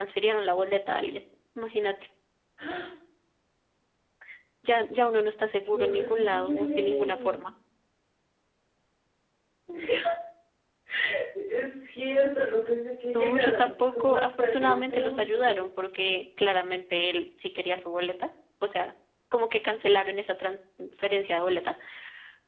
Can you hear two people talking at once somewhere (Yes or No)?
Yes